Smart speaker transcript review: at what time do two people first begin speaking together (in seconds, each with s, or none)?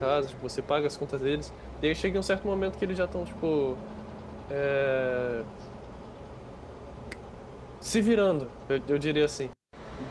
none